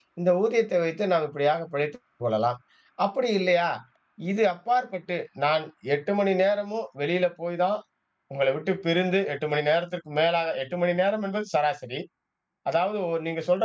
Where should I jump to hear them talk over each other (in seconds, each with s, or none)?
none